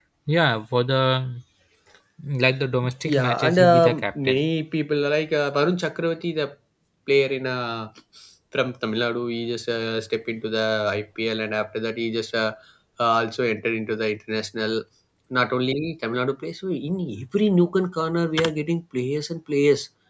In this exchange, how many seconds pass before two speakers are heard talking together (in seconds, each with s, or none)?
3.1 s